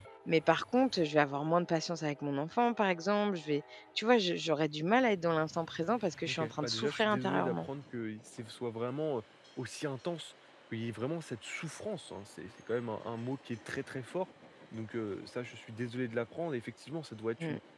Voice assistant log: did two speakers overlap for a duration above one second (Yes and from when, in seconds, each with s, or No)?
Yes, from 6.3 s